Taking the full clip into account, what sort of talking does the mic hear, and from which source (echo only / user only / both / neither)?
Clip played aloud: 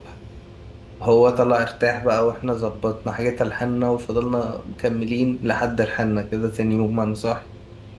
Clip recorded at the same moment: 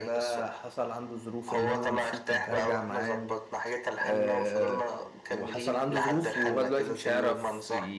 both